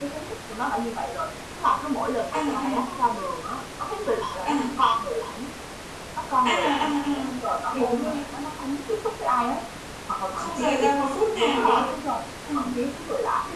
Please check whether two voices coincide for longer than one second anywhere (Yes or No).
Yes